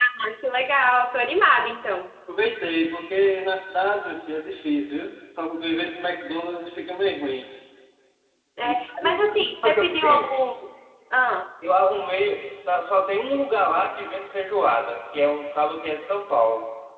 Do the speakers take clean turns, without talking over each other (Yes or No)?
No